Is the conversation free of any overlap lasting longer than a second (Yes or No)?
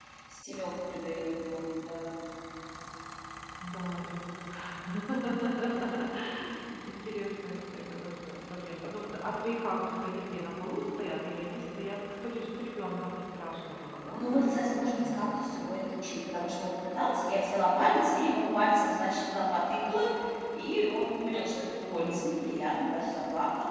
No